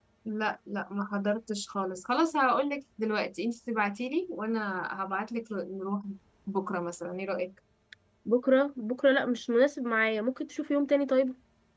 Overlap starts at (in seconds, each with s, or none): none